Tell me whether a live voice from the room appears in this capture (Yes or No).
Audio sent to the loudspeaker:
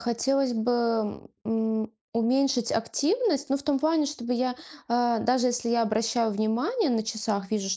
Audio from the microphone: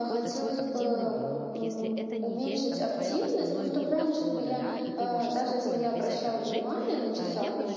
Yes